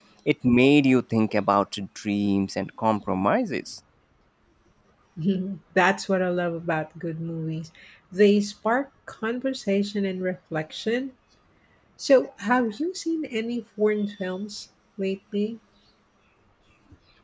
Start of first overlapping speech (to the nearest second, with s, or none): none